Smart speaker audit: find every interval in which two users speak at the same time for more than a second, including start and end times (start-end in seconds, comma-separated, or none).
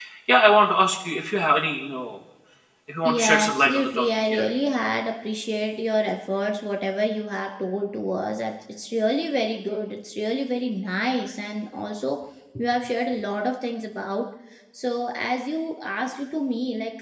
3.0-4.5